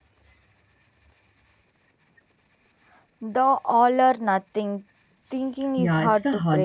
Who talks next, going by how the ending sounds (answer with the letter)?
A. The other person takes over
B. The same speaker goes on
A